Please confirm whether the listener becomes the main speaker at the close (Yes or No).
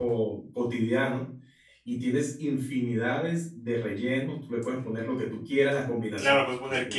Yes